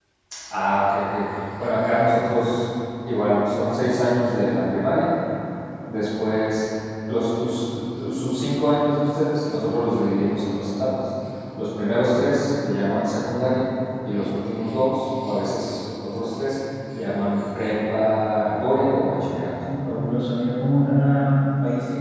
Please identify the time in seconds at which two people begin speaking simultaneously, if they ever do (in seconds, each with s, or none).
none